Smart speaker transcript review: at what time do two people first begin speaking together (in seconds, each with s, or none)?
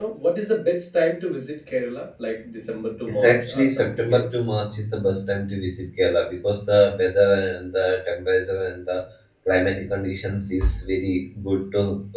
3.1 s